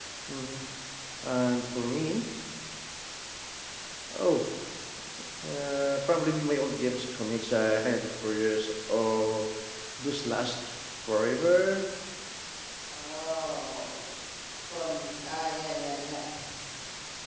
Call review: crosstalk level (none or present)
none